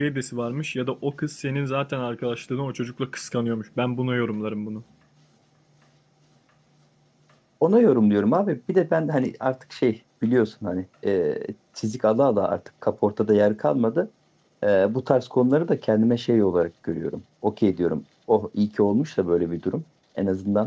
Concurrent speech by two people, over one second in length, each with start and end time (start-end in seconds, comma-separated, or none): none